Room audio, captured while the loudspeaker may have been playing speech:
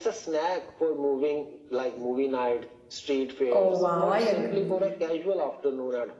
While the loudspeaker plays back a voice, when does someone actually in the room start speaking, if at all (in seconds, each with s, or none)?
3.5 s